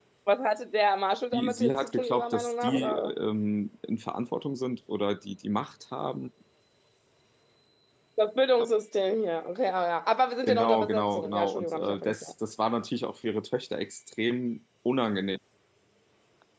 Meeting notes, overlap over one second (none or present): present